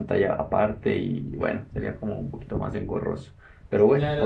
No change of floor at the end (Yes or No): No